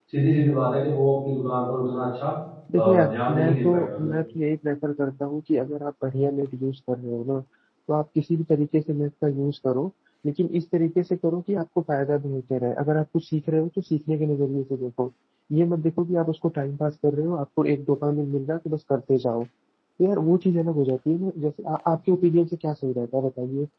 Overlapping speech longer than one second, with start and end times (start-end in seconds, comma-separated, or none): 2.8-4.1